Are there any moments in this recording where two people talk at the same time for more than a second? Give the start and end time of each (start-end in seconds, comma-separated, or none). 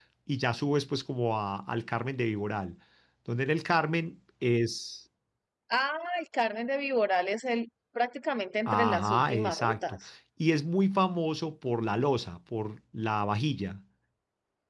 8.7-10.0